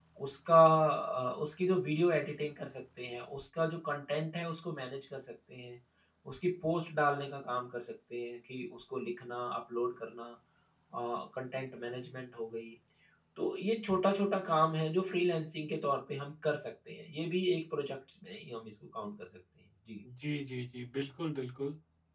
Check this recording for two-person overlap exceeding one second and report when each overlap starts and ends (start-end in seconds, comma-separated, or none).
none